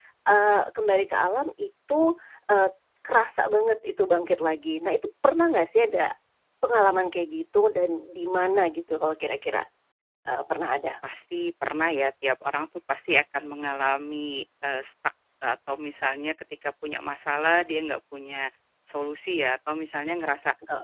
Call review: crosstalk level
none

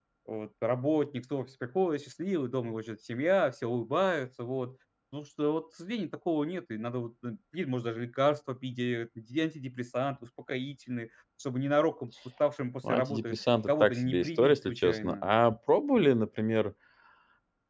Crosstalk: present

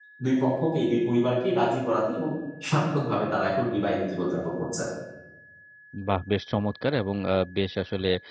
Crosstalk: none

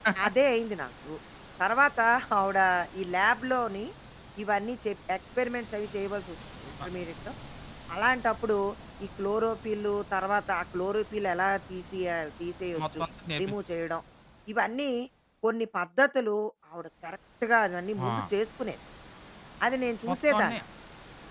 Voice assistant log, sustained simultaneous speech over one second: none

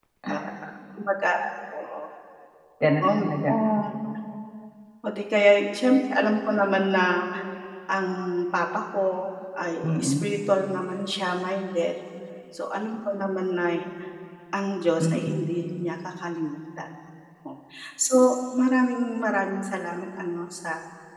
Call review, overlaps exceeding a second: none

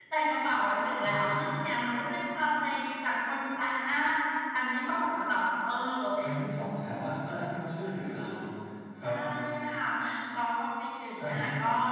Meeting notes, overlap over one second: none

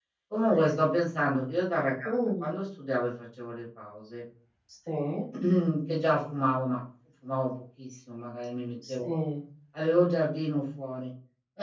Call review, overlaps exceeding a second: none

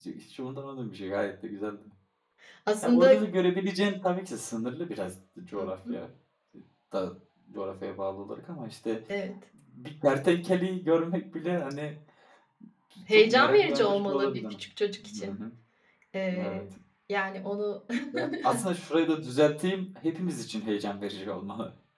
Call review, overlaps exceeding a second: present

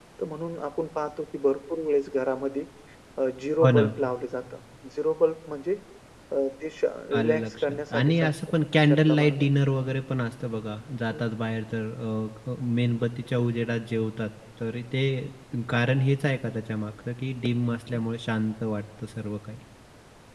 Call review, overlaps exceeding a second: present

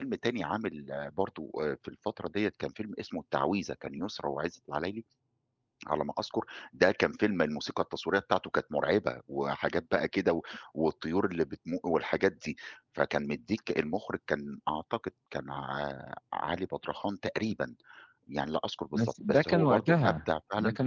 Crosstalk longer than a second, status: present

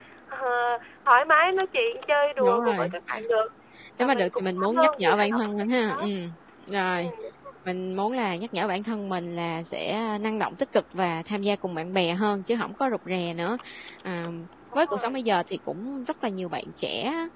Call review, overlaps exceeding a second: present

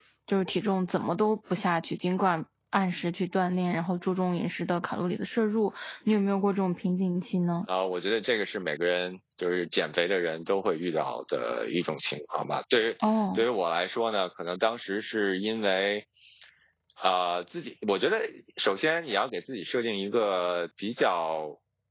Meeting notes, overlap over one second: none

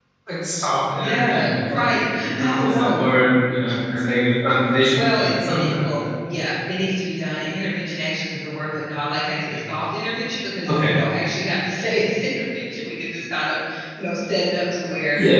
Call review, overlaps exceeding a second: present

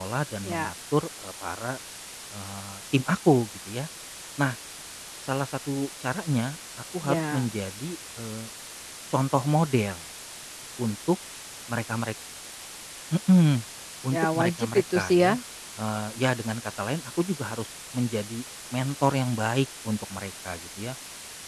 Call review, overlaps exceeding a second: present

